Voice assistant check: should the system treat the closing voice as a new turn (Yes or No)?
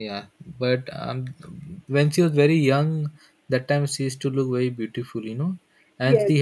Yes